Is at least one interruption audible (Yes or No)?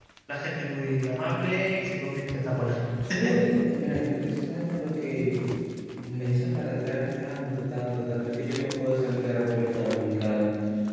No